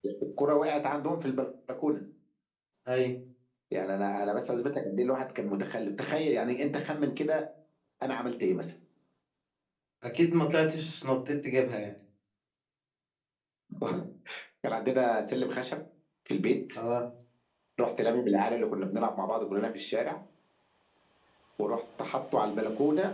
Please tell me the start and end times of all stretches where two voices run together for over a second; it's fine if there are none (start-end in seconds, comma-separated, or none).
none